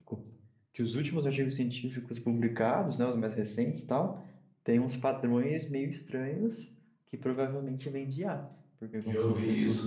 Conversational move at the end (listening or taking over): taking over